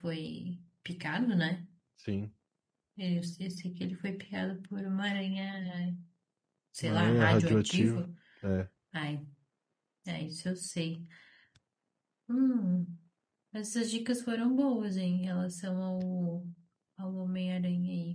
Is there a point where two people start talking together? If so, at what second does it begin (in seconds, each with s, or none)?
6.8 s